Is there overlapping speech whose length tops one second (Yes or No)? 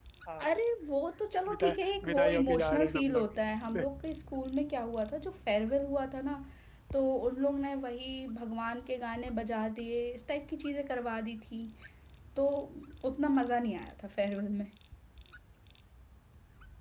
Yes